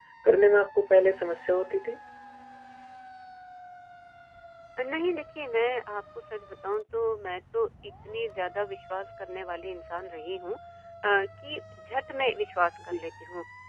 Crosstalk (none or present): none